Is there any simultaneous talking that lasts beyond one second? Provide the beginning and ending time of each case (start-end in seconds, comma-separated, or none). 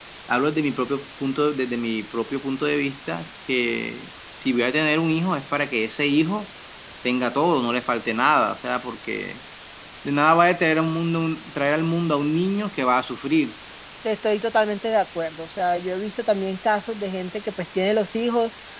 none